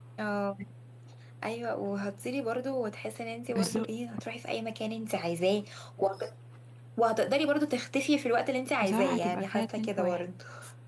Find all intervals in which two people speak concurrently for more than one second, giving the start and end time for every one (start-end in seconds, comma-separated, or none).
8.8-10.2